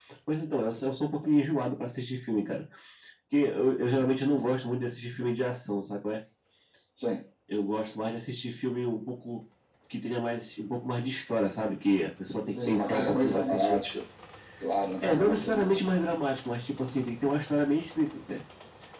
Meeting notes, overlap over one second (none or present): present